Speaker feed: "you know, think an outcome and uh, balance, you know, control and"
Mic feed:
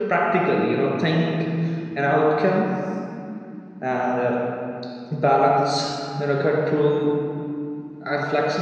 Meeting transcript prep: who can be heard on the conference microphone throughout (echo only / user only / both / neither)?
echo only